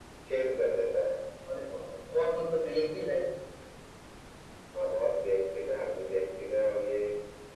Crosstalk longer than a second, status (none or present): none